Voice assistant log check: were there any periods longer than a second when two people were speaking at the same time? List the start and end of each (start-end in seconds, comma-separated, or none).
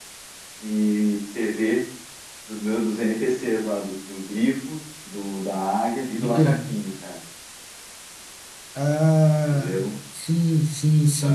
none